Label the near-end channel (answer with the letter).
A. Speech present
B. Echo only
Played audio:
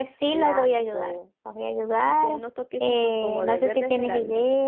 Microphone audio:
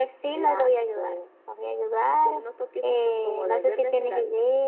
B